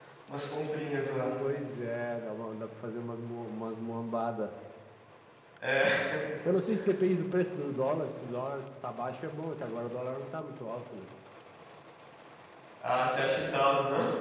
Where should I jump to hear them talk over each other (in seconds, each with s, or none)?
none